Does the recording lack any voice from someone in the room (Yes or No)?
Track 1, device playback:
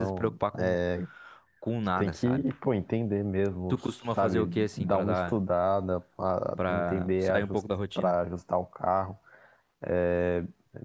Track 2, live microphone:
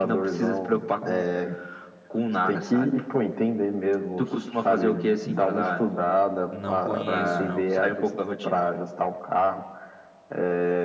No